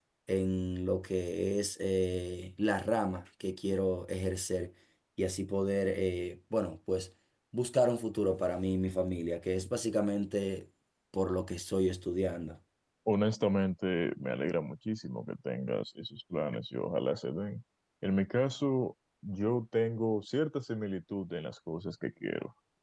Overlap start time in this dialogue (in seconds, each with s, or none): none